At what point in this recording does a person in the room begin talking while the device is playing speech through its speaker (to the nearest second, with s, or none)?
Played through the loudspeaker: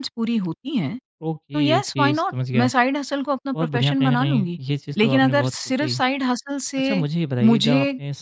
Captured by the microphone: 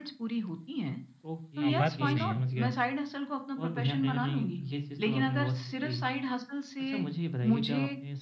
2 s